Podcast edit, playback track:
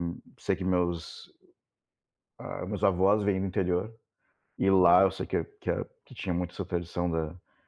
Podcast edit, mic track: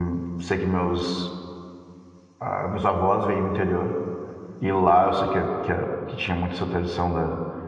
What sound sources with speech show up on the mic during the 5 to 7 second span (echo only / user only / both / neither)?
echo only